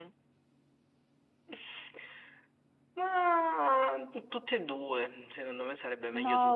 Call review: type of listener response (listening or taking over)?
taking over